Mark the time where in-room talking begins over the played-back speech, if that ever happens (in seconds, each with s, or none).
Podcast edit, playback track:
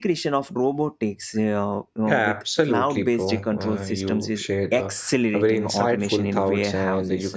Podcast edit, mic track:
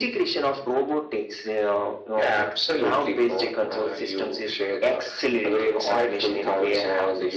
none